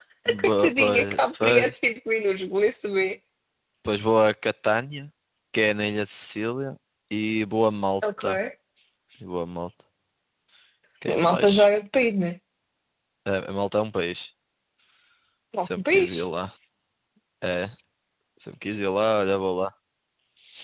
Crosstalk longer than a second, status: present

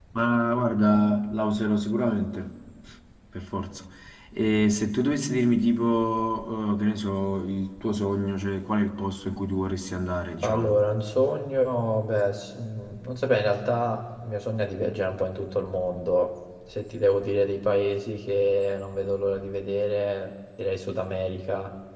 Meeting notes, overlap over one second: none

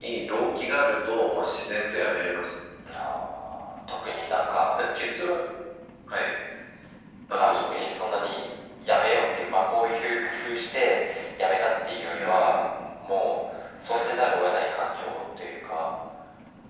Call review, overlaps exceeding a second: none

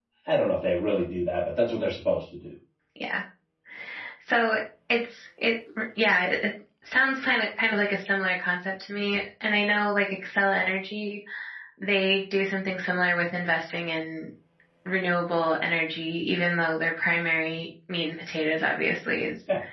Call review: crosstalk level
none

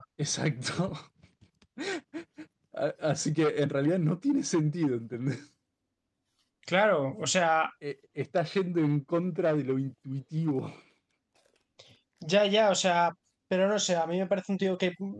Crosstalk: none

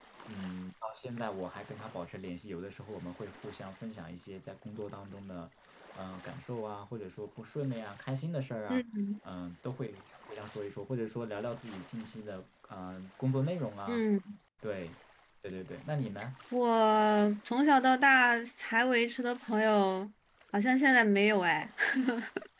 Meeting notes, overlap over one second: none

